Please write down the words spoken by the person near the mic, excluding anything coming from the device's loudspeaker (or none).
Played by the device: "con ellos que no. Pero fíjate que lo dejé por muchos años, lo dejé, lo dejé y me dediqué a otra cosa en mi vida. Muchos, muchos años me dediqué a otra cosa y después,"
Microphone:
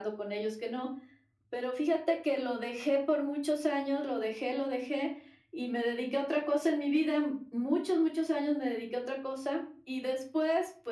none